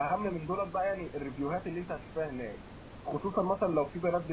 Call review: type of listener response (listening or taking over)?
listening